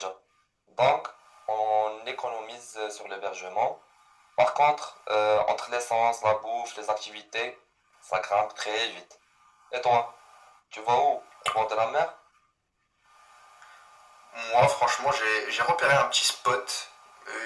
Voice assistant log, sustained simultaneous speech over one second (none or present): none